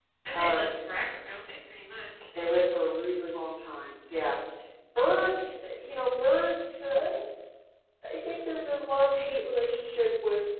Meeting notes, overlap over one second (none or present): none